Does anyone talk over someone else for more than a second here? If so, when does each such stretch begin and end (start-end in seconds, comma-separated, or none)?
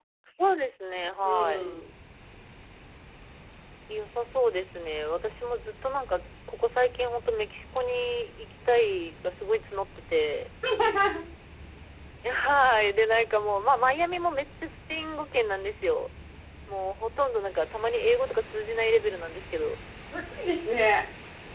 none